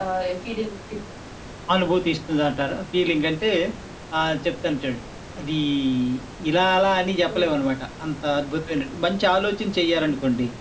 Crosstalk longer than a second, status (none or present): none